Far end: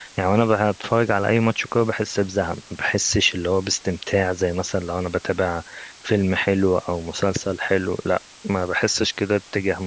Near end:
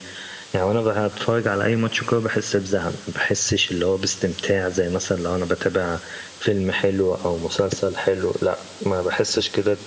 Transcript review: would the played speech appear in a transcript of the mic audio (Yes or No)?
Yes